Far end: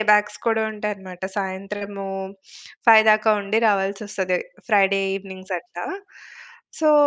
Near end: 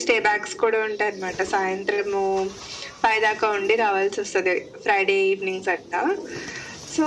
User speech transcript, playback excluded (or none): none